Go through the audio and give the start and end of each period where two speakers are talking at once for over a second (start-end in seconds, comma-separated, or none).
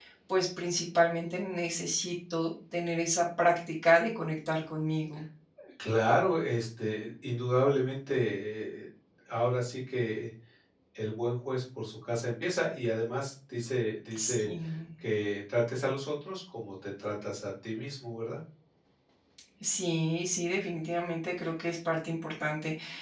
none